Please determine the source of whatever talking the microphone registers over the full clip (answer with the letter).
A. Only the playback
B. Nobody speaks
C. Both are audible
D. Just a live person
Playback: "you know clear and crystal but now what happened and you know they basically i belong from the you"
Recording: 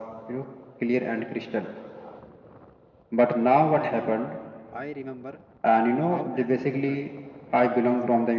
C